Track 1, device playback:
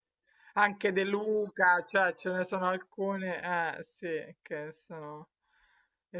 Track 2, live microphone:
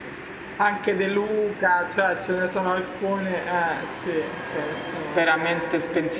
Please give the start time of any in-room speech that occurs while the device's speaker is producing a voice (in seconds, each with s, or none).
5.1 s